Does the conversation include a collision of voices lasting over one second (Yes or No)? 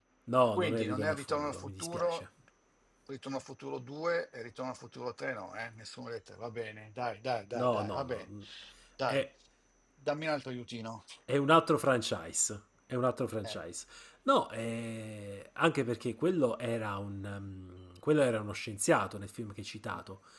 Yes